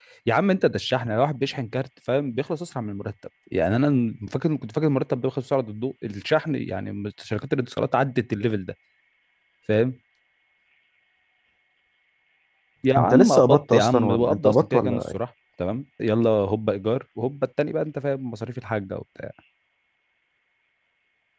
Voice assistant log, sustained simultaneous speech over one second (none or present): present